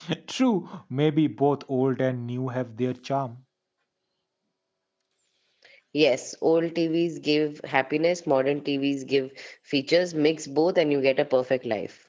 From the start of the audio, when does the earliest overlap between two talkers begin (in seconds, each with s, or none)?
none